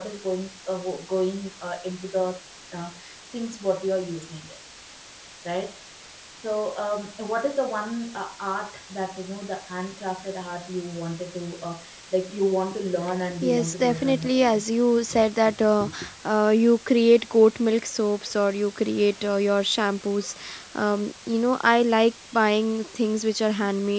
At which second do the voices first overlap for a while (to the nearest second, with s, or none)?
13 s